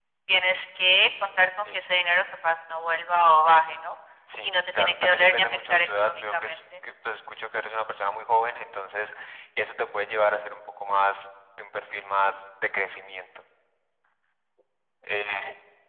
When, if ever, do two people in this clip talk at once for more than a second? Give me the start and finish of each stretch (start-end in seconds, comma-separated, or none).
4.4-6.5